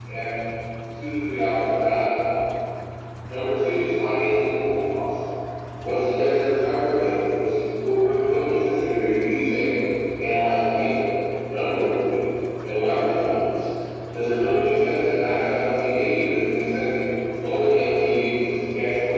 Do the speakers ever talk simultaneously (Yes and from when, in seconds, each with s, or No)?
No